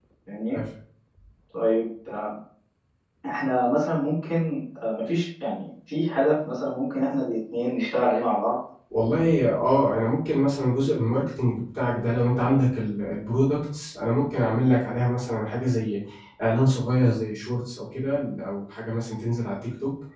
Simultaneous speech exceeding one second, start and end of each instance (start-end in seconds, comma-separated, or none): none